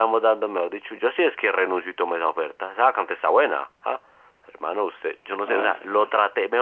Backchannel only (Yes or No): Yes